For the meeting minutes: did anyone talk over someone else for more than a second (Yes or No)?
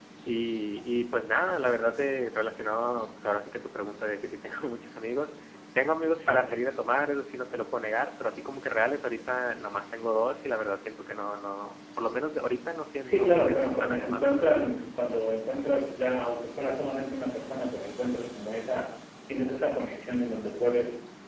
Yes